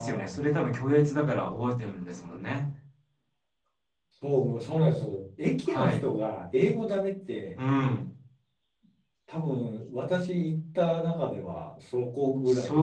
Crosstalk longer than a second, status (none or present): none